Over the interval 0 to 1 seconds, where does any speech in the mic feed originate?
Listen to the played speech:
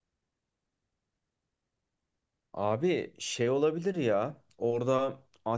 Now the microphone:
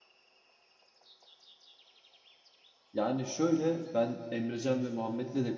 neither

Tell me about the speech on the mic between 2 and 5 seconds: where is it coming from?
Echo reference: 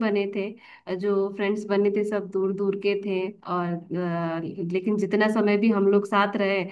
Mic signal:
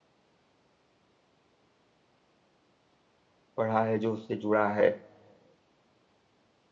user only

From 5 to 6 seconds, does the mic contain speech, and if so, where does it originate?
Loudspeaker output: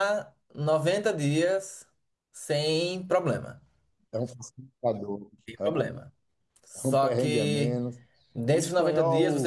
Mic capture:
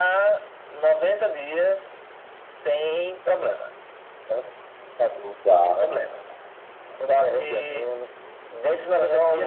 both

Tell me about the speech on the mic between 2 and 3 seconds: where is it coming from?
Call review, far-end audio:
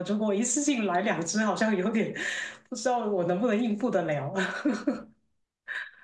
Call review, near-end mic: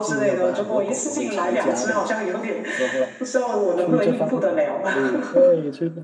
both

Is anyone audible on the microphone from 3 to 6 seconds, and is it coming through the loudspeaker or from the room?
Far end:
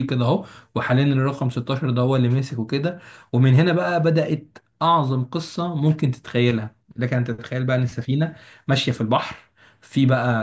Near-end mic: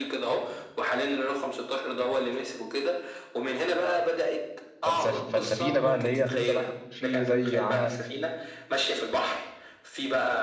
both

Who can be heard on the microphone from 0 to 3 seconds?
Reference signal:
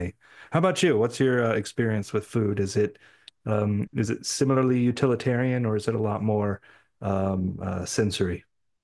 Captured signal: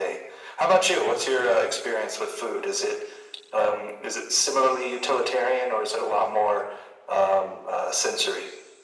echo only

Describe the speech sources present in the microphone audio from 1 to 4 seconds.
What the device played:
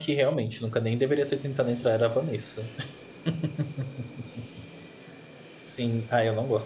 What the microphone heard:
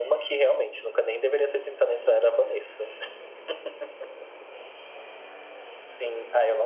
echo only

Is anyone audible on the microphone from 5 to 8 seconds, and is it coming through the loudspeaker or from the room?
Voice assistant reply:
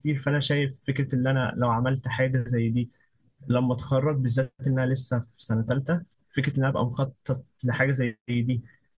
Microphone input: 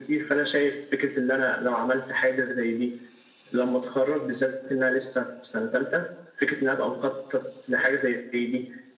echo only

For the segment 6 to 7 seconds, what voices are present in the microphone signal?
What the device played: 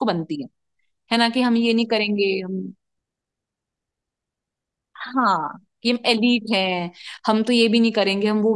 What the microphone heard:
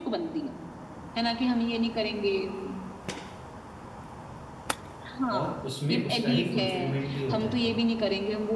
both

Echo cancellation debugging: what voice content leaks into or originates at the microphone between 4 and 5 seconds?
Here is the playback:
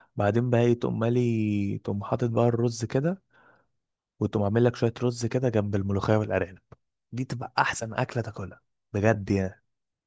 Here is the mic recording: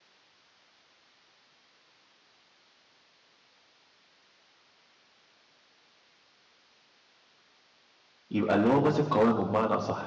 neither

